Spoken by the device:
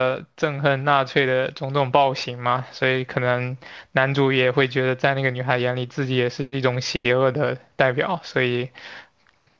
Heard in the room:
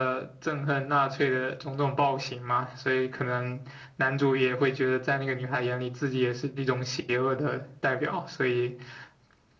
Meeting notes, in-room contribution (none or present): none